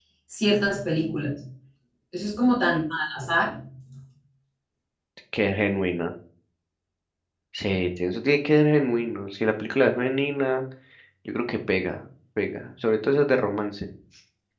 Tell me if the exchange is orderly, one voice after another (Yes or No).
Yes